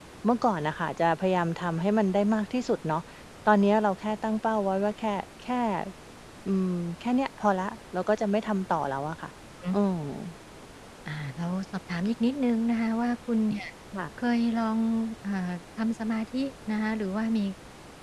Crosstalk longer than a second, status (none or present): none